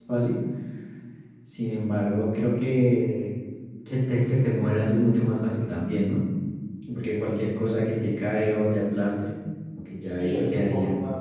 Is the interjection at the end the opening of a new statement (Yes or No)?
Yes